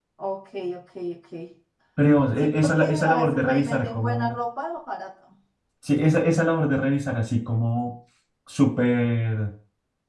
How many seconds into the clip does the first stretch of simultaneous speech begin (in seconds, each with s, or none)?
2.4 s